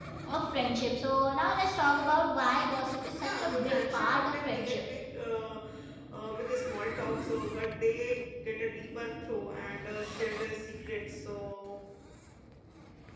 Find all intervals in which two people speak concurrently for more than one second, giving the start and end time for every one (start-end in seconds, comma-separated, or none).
3.2-4.8